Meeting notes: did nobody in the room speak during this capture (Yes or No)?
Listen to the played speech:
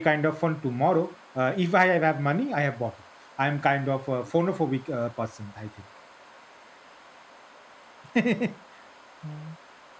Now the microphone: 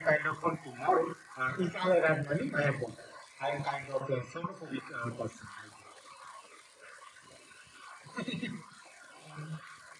Yes